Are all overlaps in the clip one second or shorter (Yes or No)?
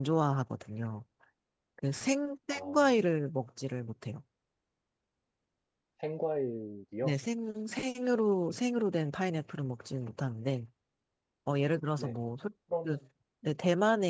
Yes